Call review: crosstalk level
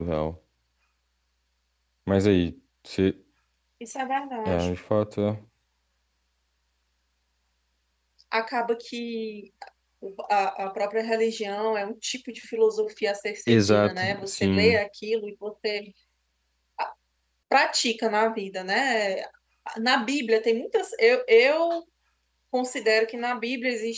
present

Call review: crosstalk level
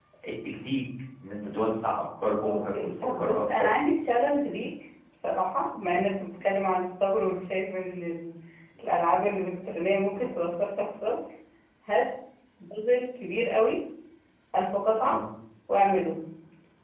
present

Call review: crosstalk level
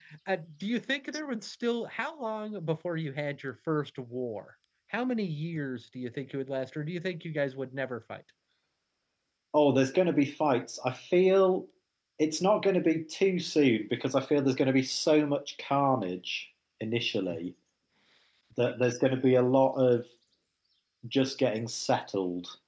none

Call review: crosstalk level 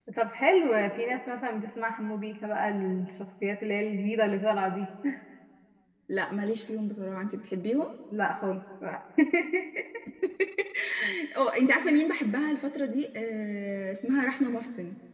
none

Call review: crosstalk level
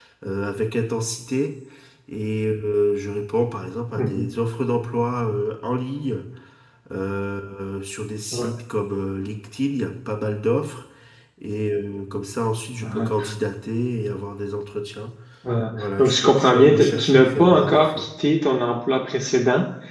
present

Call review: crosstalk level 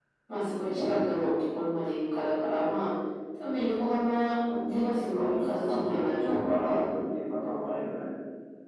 present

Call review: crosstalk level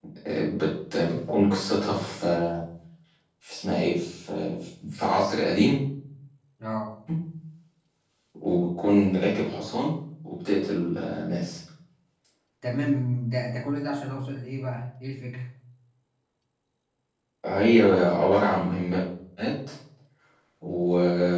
none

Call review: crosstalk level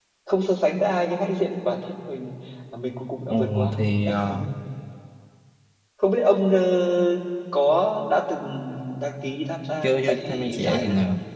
present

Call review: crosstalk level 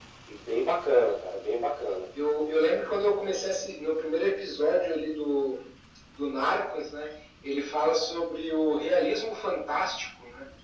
none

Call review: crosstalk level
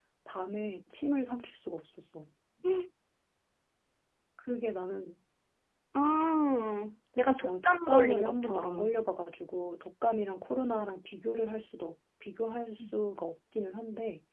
present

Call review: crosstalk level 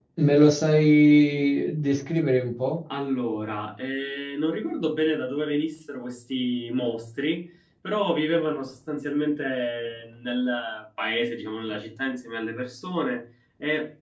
none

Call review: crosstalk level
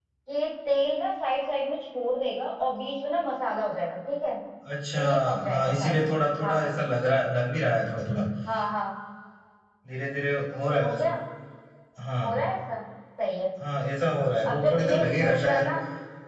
present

